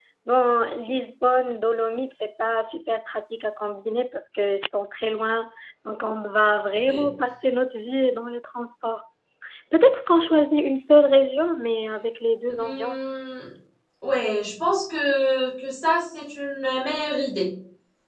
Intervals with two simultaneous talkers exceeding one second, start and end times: none

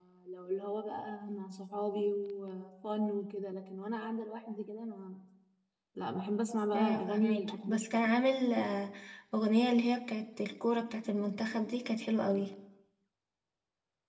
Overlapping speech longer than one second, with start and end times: 6.7-8.1

